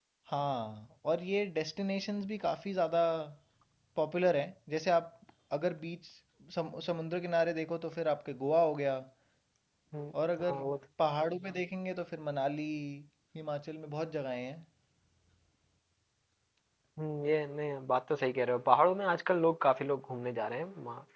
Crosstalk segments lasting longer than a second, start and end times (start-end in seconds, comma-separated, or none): none